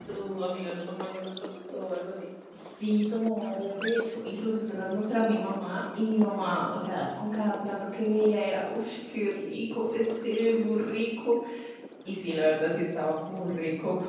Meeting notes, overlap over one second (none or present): none